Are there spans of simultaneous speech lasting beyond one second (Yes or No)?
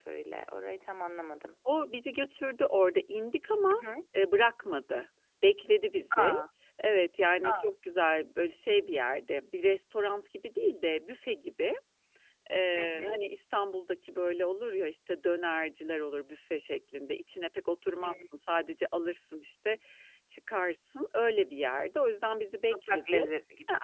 No